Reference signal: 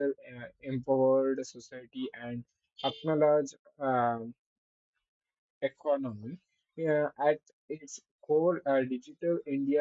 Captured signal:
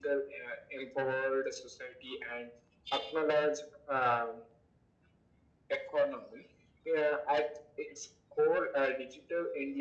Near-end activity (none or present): none